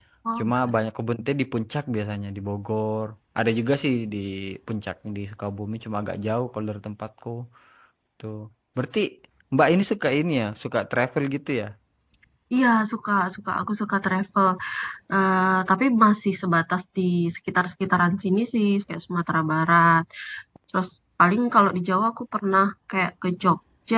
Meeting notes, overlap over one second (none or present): none